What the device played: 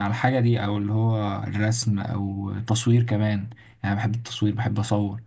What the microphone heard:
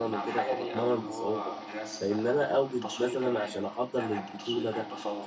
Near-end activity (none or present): present